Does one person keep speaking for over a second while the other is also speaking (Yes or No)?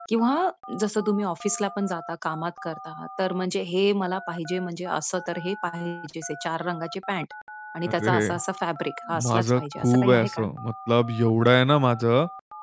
Yes